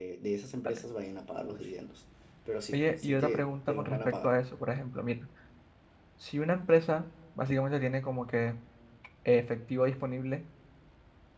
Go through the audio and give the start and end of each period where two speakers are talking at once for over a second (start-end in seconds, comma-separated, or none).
2.7-4.3